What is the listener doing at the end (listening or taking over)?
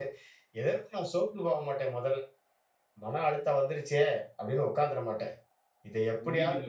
taking over